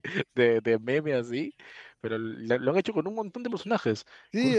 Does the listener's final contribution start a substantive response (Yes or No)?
Yes